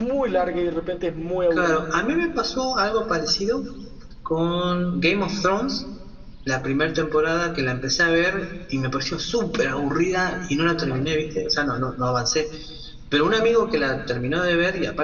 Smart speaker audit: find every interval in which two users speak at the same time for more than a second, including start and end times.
none

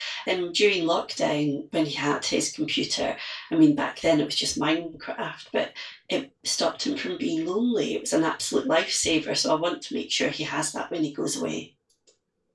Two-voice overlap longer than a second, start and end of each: none

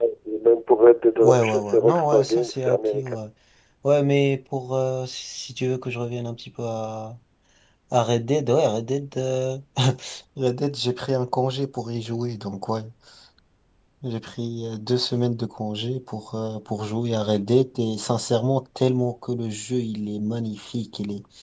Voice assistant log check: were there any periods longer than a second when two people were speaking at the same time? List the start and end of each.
1.2-3.2

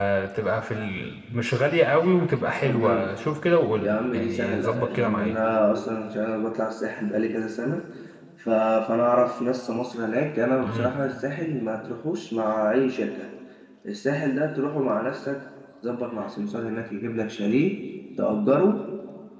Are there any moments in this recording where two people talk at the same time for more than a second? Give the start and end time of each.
3.8-5.3

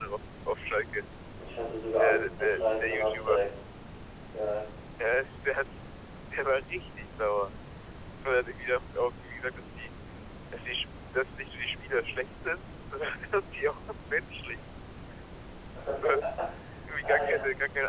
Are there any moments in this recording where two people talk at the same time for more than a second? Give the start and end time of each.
2.0-3.4

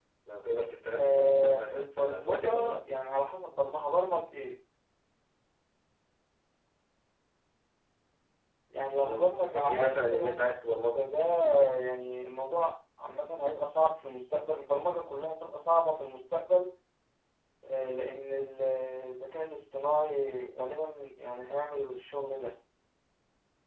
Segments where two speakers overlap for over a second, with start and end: 0.9-2.8, 9.0-10.5

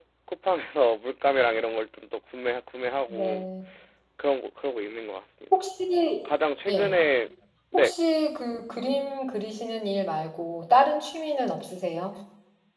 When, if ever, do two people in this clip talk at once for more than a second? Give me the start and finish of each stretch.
none

